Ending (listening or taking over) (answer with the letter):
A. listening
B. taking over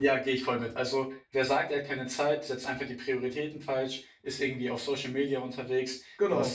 A